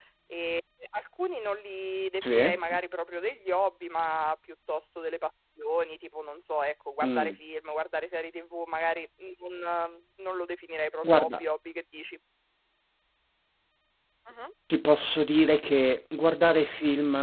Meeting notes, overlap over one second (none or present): none